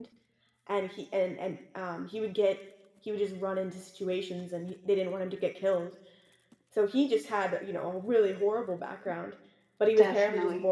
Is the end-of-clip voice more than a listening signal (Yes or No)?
No